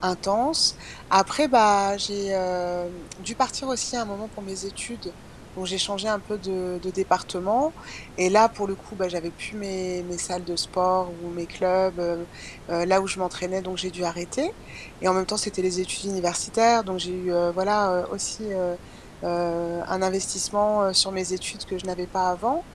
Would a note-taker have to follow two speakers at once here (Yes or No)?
No